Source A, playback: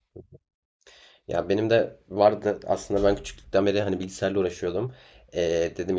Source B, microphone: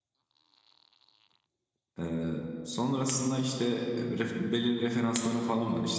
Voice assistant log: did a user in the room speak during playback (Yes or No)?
Yes